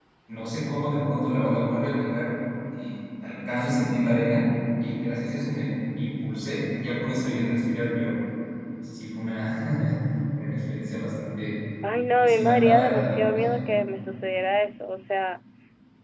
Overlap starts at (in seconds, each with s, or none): 12.2 s